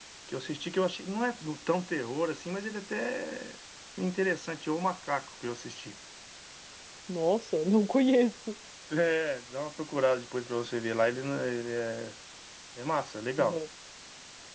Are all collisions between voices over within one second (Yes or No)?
Yes